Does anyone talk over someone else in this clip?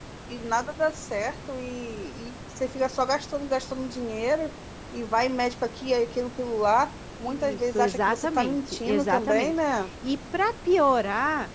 Yes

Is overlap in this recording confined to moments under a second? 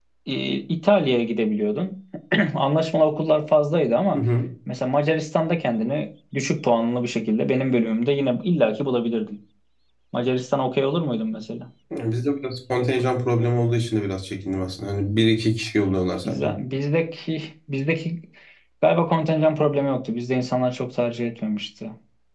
Yes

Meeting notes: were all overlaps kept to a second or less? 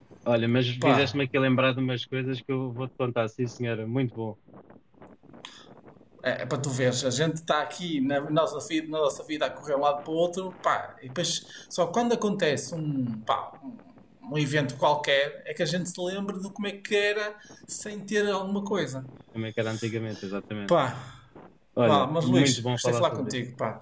No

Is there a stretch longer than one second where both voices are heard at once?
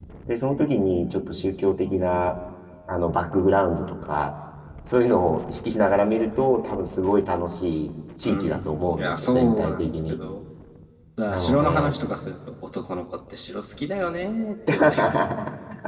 Yes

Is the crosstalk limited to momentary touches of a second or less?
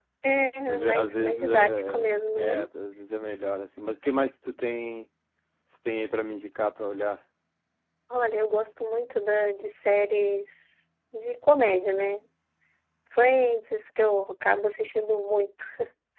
No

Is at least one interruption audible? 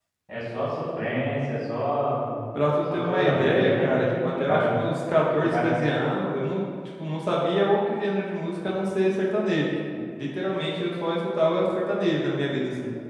Yes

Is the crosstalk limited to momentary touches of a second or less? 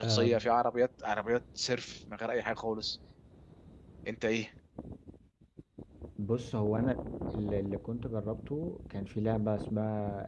Yes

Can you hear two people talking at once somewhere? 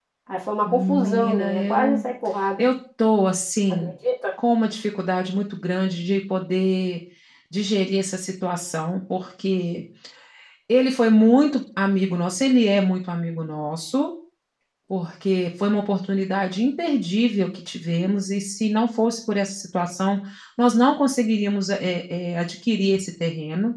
Yes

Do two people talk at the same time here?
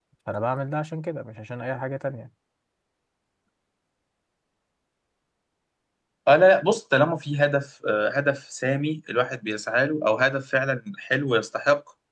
No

